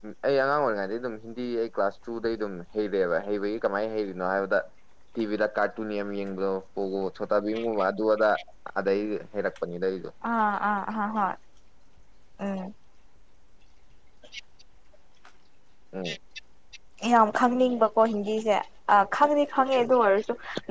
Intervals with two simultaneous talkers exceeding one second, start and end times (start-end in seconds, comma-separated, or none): none